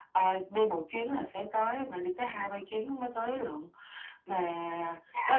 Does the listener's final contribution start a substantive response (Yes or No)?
No